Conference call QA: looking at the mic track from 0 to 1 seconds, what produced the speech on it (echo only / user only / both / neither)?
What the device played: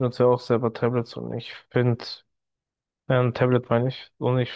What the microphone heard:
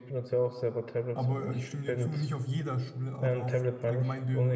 echo only